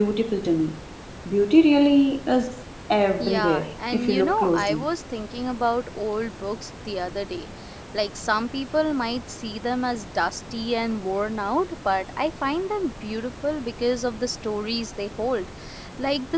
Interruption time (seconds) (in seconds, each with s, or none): 3.2 s